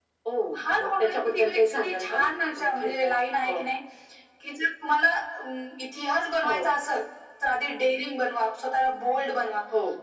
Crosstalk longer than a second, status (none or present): present